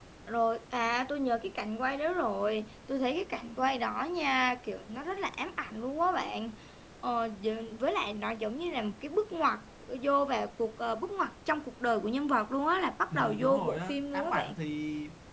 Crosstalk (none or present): present